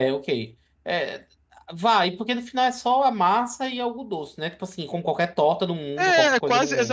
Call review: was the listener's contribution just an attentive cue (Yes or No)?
No